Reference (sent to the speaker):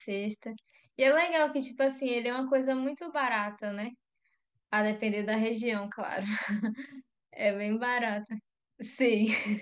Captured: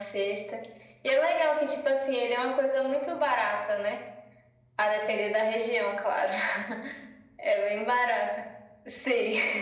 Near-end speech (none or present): none